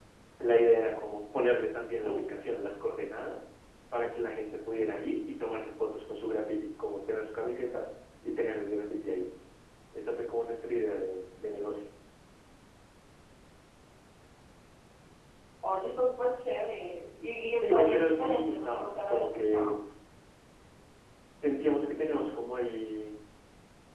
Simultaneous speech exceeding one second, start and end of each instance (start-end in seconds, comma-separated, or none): 17.6-19.7